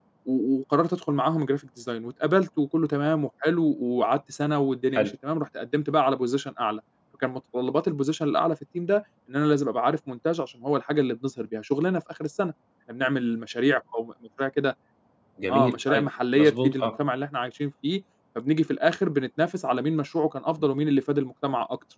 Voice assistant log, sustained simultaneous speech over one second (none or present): present